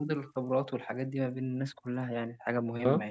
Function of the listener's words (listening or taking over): taking over